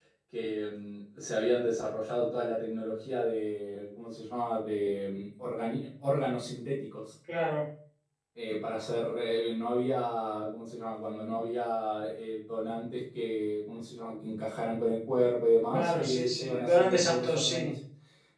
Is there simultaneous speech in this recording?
Yes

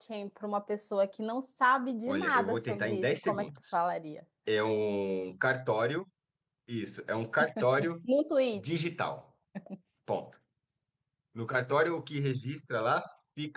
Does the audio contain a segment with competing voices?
Yes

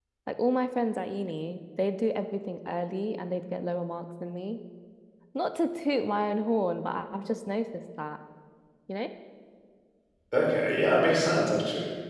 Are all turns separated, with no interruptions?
Yes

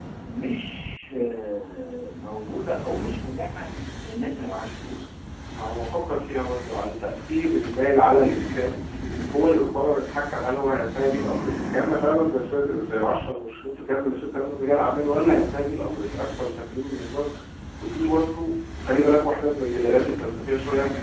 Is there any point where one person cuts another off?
No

